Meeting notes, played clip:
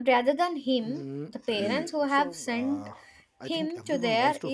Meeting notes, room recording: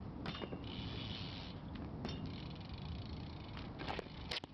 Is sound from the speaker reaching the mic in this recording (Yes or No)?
No